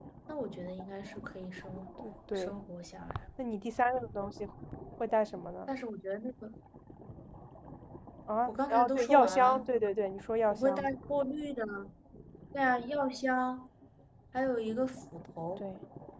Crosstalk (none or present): present